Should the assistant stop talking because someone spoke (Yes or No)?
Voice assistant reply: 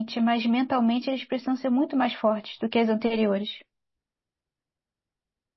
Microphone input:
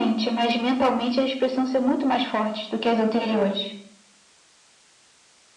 No